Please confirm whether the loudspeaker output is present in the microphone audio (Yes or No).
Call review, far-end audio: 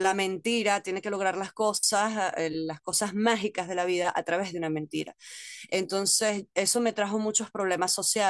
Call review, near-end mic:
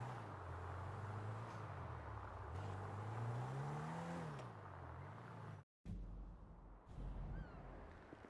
No